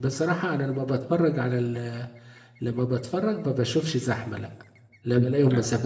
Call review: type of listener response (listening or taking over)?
listening